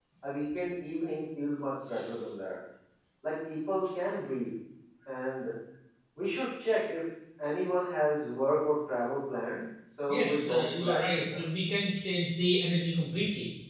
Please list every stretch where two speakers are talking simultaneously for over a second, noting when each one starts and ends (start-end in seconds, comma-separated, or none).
10.1-11.4